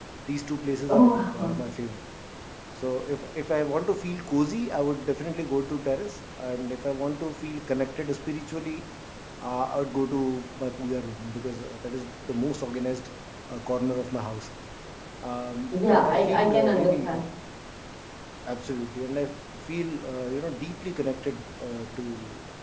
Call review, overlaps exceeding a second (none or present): present